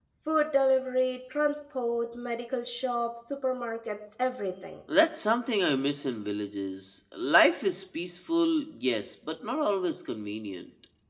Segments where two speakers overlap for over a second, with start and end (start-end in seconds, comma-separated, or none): none